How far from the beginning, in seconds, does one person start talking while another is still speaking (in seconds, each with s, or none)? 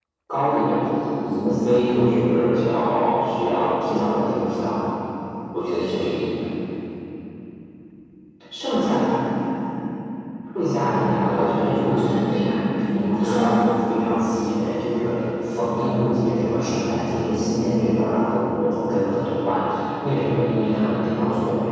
10.8 s